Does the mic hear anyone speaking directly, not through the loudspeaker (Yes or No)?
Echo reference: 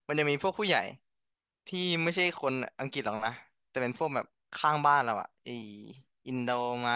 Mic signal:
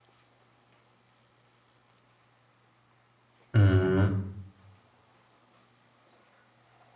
Yes